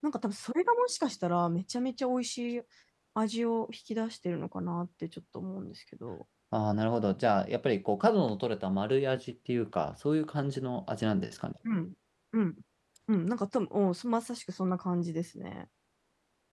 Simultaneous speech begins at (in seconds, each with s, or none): none